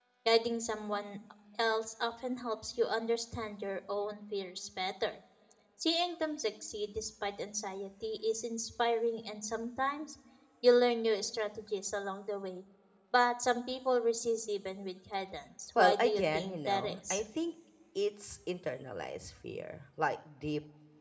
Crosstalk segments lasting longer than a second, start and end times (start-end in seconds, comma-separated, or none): 15.8-17.2